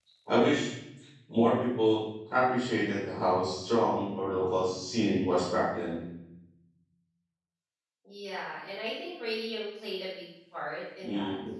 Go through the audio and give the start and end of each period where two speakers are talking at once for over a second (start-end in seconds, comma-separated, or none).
none